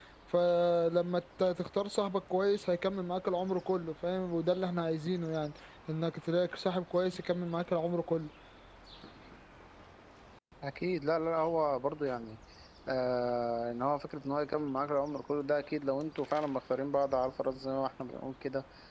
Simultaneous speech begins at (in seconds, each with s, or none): none